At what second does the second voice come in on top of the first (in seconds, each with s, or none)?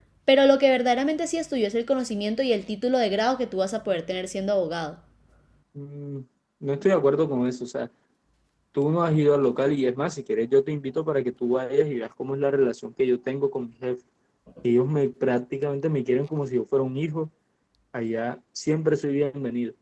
none